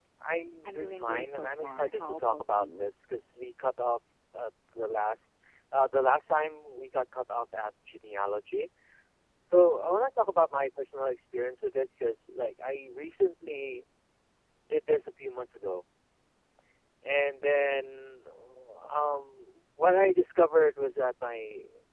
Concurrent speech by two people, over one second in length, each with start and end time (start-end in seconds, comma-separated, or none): 0.7-2.9